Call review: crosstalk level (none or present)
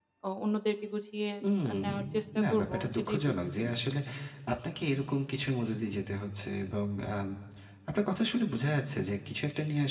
present